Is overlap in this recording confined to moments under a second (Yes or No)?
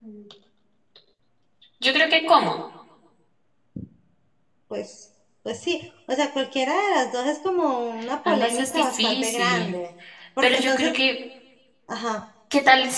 No